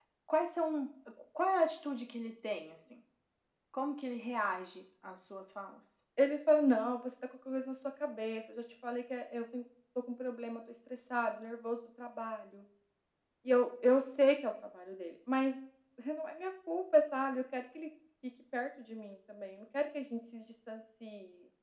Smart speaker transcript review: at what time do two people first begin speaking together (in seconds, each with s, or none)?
none